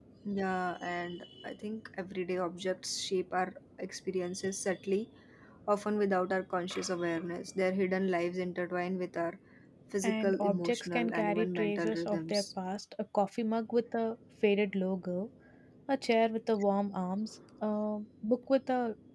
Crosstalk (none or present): present